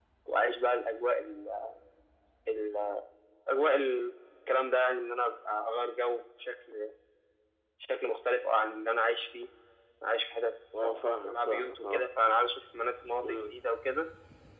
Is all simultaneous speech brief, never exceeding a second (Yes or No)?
No